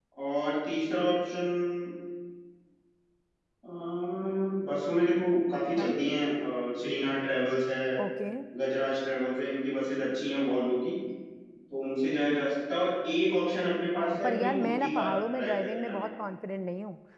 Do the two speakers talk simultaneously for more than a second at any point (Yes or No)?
Yes